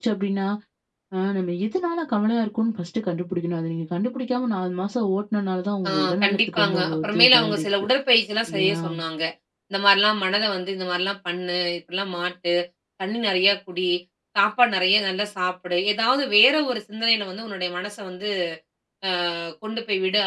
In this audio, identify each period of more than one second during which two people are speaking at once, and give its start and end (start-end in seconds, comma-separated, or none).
5.9-7.7